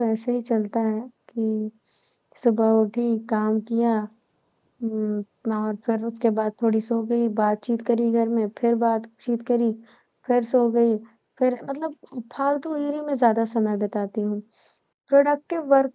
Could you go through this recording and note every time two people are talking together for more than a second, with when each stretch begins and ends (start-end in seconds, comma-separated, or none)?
none